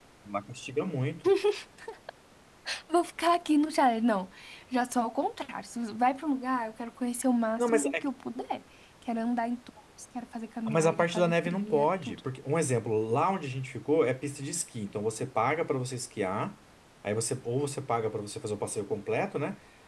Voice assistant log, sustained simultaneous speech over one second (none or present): present